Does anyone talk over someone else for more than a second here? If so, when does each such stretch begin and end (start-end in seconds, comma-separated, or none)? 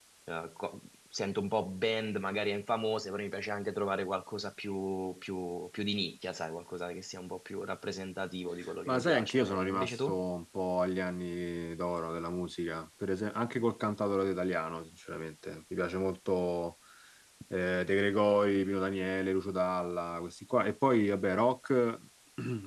8.9-10.2